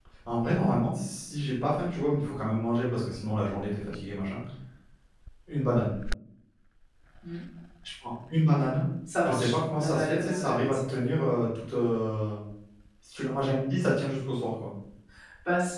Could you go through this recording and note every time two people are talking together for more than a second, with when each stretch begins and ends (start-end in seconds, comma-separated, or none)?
9.2-11.0